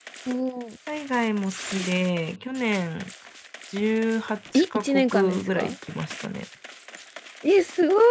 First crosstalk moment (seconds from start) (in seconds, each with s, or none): 4.5 s